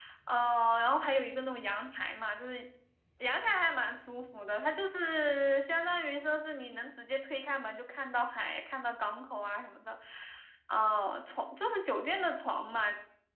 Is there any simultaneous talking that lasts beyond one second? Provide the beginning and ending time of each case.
none

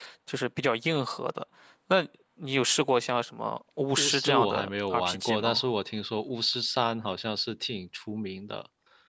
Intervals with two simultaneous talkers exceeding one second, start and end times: 4.0-5.6

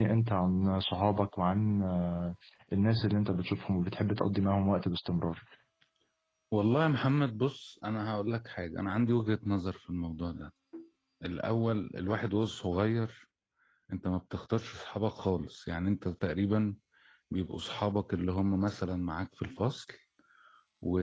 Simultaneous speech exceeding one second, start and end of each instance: none

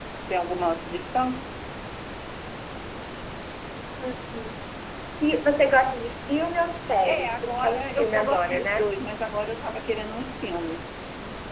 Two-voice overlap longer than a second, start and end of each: 7.0-8.9

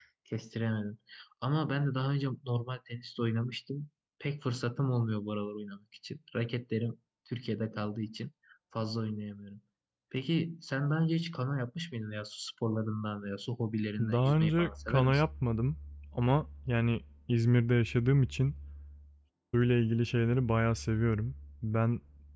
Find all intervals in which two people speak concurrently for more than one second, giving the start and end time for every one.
14.0-15.2

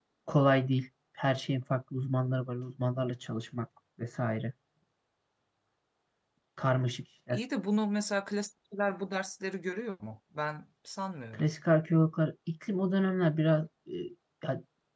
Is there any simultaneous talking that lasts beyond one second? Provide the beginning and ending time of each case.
none

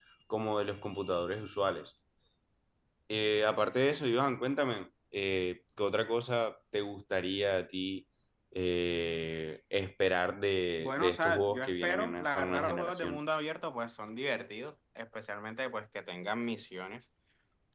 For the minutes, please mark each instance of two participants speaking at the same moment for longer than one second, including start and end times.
10.8-13.2

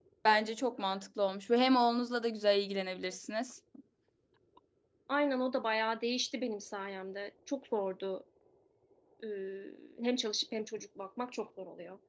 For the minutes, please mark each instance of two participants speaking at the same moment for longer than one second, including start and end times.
none

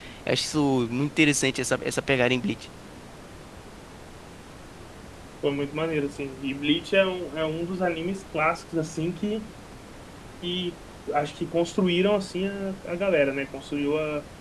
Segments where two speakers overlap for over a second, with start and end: none

